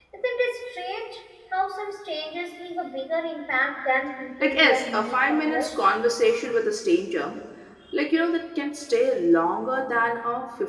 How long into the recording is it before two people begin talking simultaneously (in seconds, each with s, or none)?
4.4 s